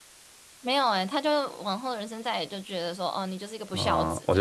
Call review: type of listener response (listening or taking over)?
taking over